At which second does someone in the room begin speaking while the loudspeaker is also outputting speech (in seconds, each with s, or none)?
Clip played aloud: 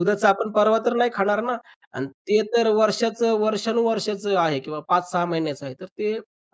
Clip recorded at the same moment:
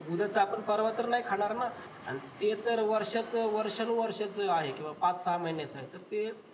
none